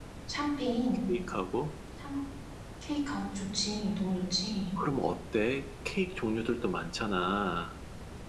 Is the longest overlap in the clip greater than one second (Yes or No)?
No